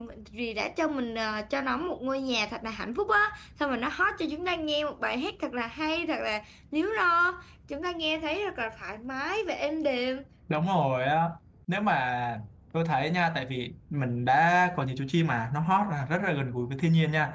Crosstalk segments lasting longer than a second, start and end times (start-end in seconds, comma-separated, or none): none